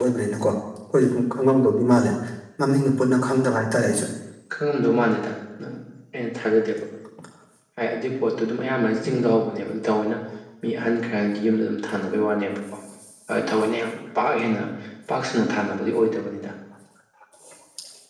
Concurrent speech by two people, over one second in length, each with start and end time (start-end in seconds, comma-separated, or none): none